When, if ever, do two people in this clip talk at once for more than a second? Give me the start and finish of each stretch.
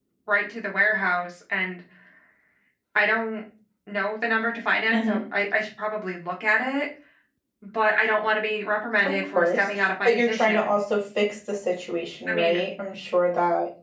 9.0-10.7

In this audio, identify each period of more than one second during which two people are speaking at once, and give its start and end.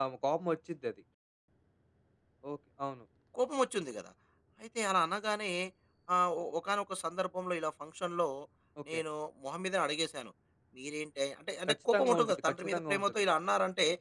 11.7-13.1

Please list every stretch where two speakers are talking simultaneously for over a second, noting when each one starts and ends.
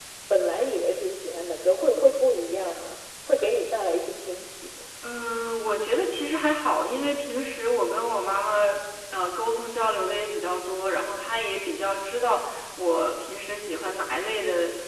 none

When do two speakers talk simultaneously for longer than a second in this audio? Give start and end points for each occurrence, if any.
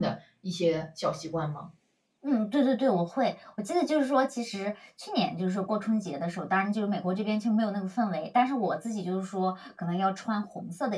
none

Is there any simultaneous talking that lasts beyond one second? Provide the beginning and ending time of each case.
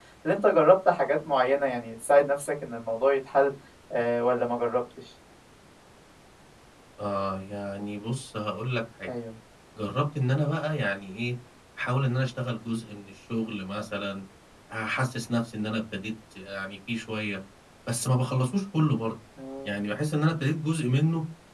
none

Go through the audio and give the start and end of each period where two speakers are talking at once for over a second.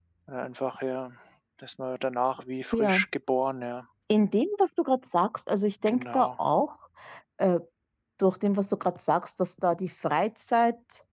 none

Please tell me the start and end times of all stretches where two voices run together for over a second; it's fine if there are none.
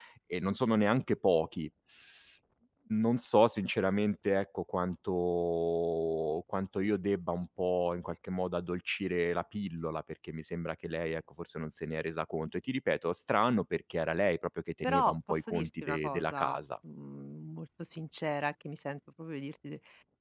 14.8-16.6

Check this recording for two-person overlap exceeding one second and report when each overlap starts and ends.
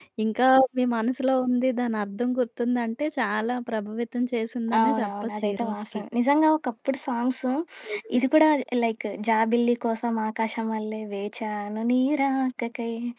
4.8-6.0

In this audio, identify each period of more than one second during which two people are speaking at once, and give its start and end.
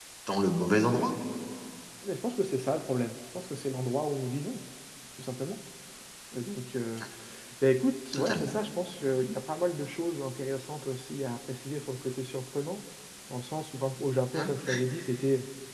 none

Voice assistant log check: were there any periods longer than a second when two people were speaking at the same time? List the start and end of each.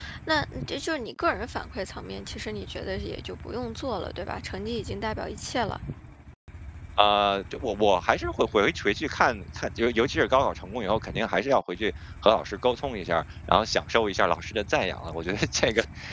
none

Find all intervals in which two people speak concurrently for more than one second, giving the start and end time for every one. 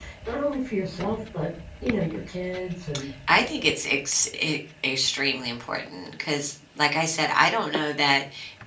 none

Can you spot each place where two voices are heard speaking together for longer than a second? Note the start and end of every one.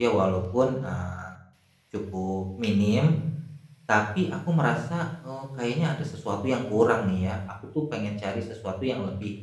none

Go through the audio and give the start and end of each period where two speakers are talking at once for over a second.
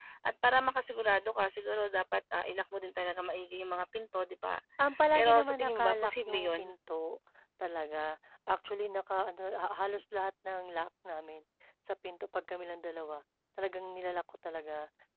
5.2-6.8

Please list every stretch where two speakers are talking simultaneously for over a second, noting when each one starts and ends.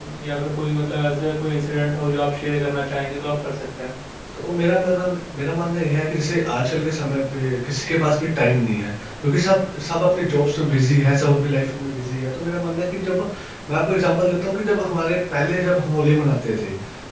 none

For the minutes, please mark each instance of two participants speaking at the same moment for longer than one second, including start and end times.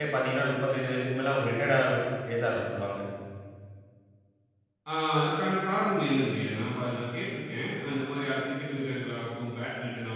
none

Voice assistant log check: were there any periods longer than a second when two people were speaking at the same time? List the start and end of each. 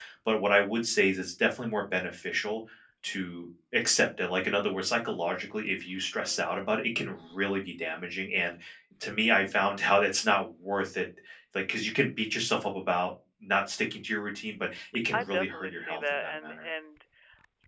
15.1-16.6

